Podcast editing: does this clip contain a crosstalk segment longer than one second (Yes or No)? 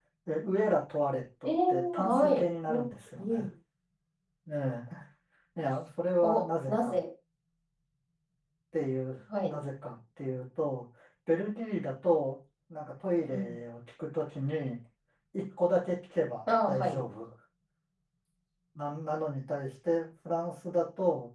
Yes